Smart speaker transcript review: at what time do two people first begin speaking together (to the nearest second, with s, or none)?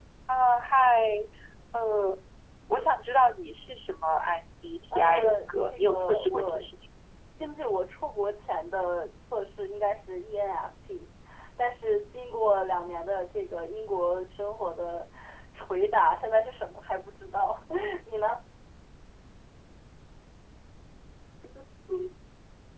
5 s